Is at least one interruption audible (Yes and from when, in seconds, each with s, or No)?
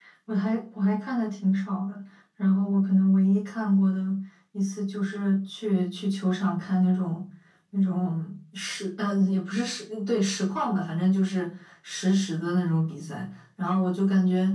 No